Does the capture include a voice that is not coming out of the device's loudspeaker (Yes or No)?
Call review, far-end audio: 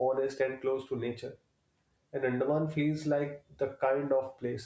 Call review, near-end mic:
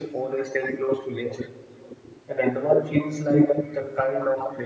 No